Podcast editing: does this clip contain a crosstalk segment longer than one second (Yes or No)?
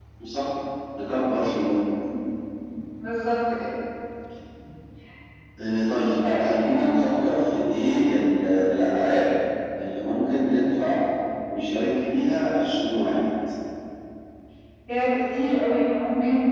No